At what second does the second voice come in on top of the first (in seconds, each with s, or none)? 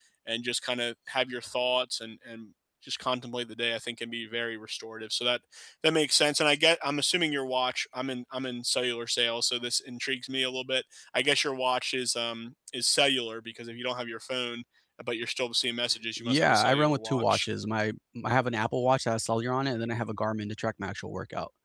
16.2 s